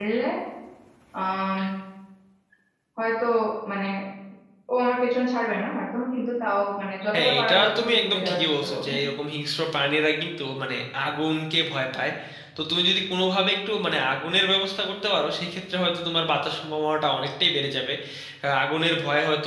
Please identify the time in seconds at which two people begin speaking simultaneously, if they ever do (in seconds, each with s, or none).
7.1 s